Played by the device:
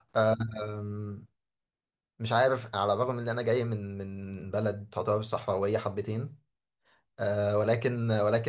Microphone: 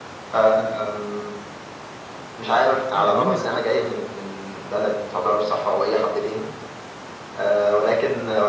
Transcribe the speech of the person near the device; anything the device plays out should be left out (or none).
ايه المانيا ساقعة؟